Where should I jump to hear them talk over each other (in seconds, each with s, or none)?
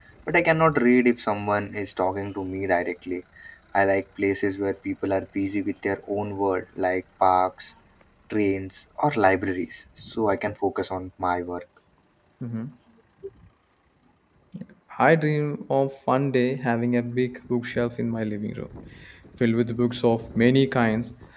none